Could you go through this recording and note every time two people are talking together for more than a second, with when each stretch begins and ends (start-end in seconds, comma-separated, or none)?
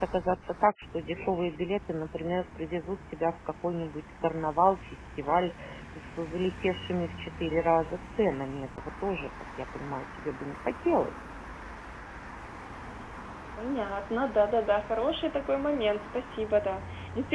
none